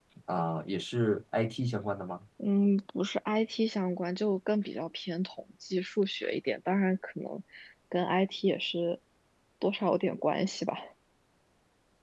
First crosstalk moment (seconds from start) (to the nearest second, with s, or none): none